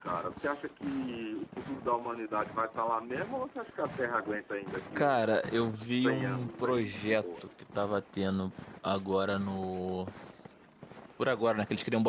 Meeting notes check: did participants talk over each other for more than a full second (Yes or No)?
Yes